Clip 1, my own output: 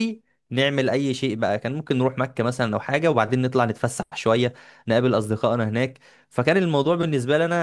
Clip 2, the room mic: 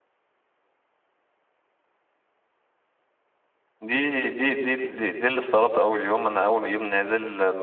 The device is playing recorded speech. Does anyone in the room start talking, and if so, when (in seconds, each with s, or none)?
3.8 s